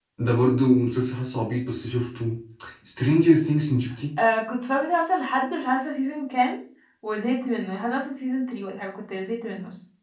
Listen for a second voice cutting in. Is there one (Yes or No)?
No